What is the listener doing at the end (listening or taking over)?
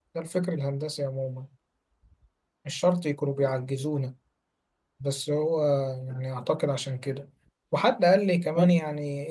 listening